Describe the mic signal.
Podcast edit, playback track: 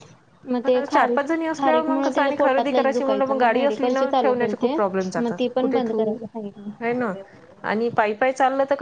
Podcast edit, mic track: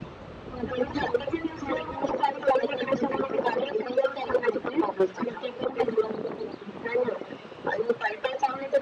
echo only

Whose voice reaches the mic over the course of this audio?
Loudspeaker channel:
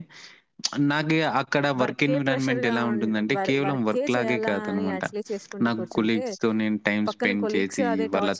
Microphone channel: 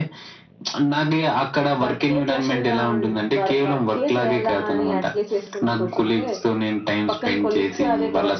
echo only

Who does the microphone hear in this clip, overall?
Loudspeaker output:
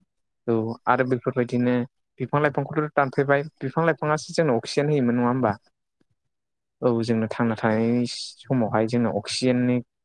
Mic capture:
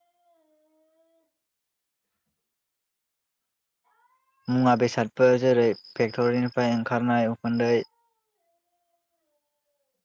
user only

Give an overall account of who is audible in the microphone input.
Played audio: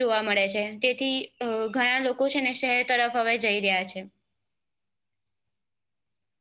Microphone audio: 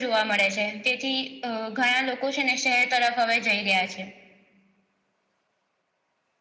echo only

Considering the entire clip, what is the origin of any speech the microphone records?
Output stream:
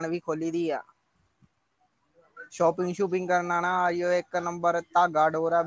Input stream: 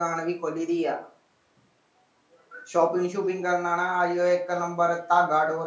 echo only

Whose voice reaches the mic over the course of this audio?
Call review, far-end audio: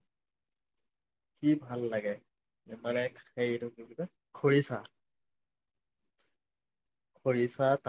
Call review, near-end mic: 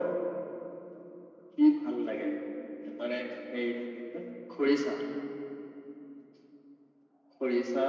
echo only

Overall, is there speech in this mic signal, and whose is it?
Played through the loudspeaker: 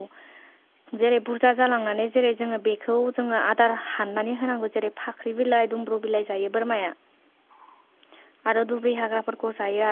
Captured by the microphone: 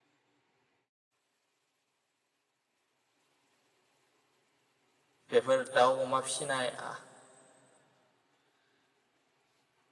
user only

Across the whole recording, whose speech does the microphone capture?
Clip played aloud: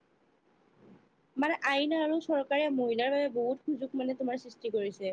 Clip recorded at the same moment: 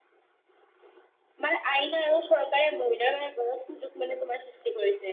echo only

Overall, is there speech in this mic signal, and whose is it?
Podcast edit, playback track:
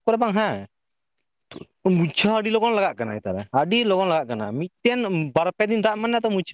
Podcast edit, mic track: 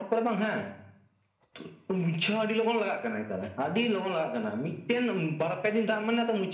echo only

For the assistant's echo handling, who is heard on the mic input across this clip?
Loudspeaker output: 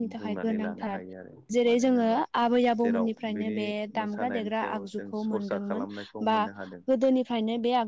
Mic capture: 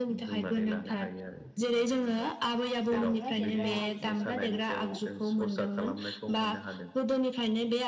both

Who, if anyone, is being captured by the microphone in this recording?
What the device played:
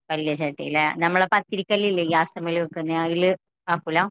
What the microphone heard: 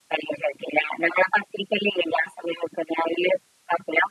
echo only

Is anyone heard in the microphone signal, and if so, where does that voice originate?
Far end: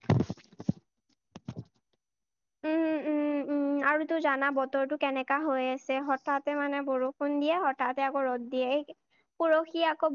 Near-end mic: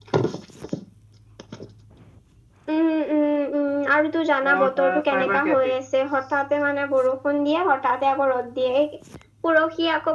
both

